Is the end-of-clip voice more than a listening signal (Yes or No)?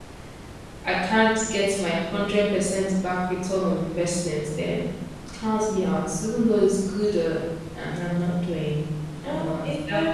Yes